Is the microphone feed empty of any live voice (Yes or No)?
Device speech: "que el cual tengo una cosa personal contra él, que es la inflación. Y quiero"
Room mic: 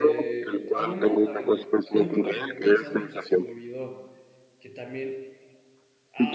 No